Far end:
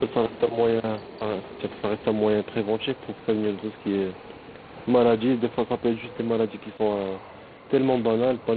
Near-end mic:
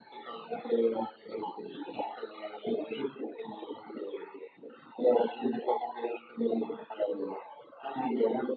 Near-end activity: none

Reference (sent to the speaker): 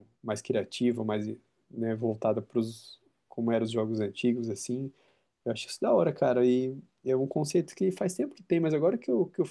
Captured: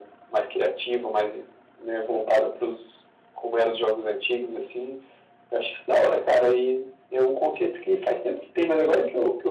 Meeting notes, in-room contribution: none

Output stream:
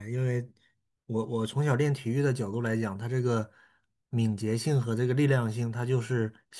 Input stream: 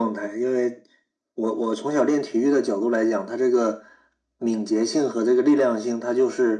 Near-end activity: none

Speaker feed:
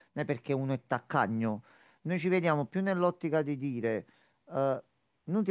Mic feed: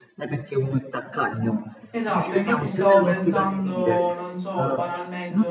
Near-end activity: present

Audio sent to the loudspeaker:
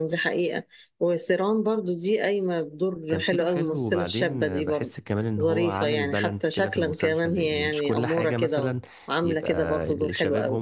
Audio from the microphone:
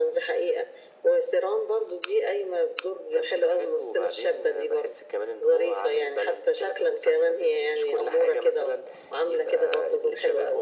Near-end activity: none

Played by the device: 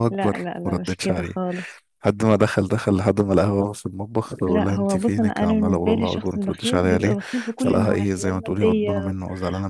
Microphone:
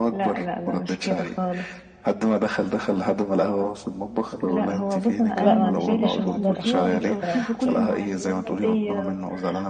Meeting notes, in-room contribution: present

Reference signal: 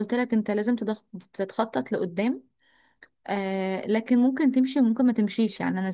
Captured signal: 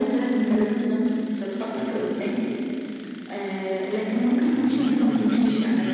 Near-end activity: present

